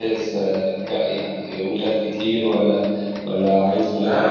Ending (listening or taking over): taking over